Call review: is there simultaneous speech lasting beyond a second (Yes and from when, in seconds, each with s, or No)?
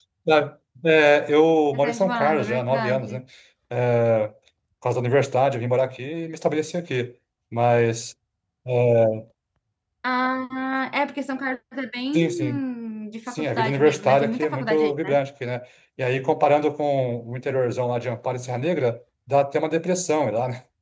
Yes, from 1.7 s